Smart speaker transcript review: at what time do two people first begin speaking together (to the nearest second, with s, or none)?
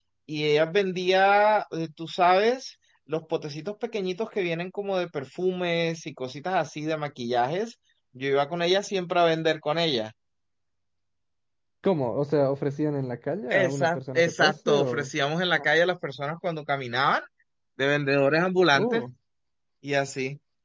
14 s